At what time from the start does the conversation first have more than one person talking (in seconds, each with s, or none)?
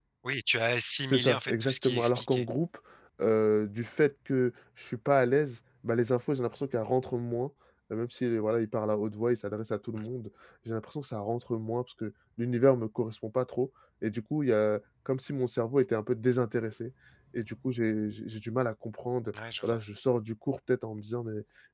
1.1 s